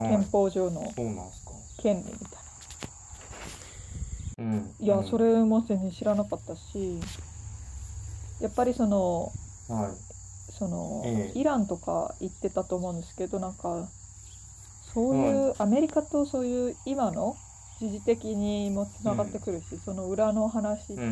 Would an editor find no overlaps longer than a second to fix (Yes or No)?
Yes